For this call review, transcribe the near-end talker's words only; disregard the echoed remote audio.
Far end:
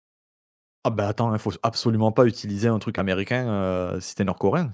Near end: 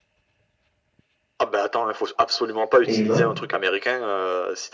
et bah

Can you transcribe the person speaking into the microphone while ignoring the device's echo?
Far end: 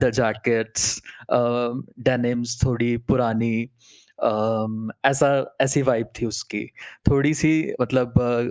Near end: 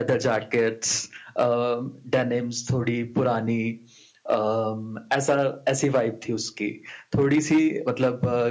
none

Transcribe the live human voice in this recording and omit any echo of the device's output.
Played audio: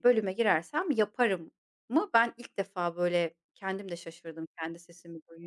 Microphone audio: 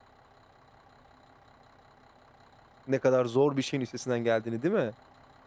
Ne kadar zor bir şeyin üstesinden geldiğini, değil mi?

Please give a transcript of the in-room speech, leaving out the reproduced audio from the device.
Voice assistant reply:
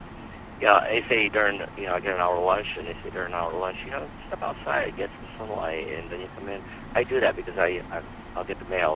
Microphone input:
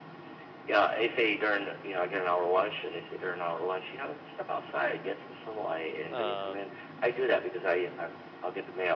Um

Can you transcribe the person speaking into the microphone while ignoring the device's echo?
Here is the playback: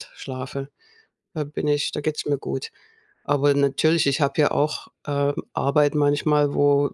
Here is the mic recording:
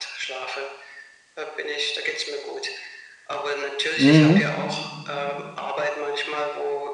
mhm.

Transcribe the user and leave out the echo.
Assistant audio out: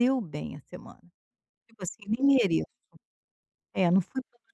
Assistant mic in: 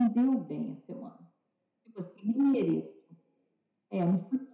none

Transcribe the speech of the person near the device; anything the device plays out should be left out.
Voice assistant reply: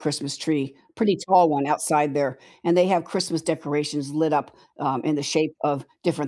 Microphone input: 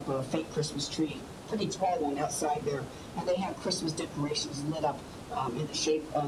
none

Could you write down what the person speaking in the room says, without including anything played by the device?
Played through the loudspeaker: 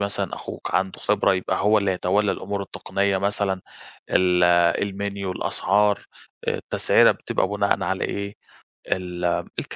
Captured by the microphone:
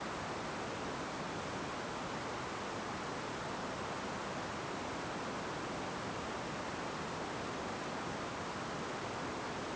none

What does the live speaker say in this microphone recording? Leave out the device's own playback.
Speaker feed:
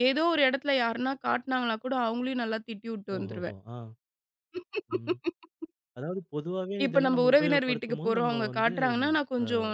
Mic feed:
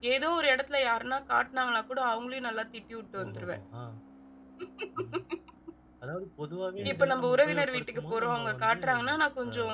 சரி.

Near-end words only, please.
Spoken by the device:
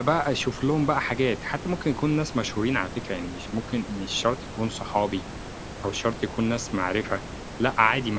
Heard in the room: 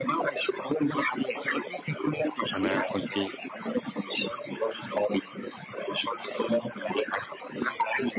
أنا كنت

